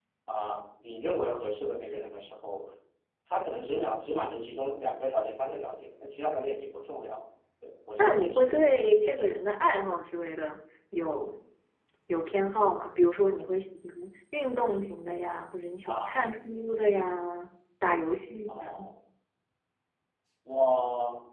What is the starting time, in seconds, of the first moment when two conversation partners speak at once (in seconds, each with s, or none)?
8.0 s